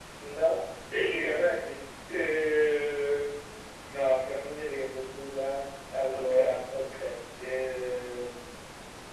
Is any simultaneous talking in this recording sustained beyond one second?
No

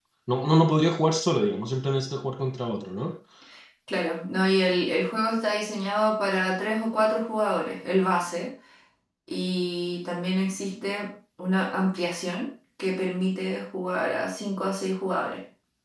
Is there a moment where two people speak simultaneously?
No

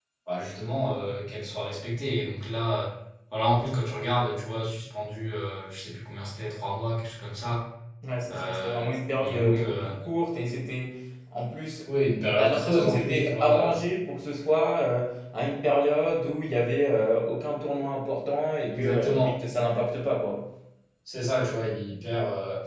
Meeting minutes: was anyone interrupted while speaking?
Yes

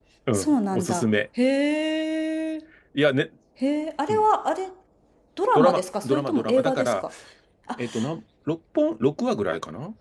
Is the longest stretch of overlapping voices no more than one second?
No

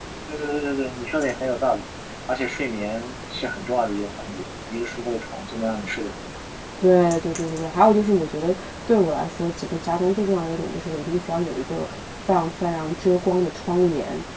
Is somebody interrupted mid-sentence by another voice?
No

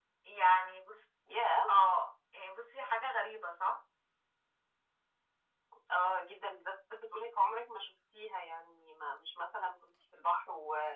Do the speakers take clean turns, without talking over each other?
Yes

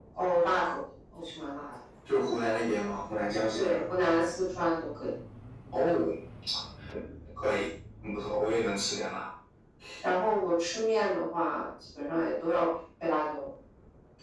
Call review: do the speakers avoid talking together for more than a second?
Yes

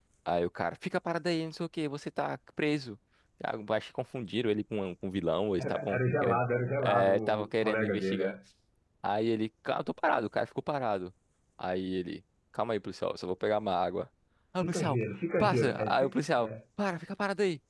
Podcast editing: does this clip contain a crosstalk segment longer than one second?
Yes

